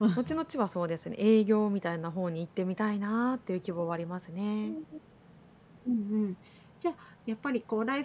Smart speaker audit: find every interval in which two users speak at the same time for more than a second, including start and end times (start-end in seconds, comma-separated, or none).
none